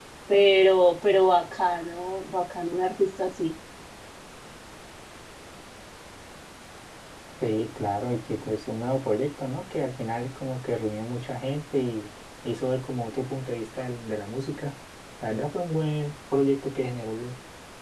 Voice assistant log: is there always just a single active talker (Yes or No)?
Yes